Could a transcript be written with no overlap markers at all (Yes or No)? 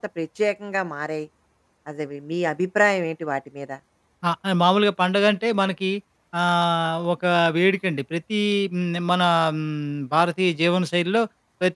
Yes